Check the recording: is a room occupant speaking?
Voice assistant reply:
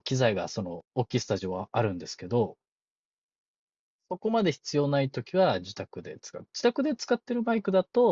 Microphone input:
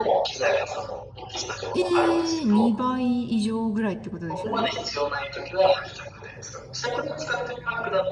Yes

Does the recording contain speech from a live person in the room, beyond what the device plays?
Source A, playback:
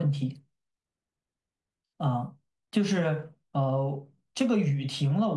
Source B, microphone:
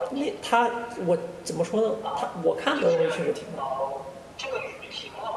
Yes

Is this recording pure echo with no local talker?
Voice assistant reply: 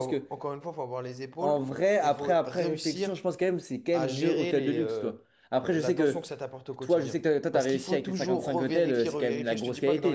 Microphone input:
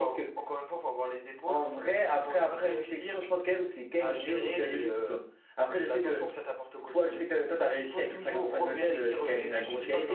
No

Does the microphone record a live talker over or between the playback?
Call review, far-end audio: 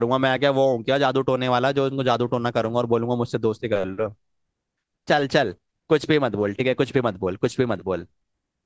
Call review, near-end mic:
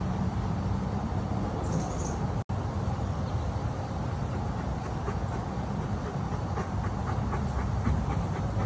No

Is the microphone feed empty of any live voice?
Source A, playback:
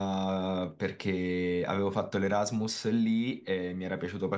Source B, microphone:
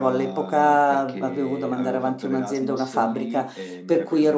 No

